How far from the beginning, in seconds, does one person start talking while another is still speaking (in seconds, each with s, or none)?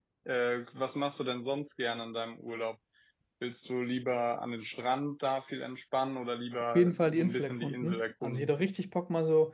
6.7 s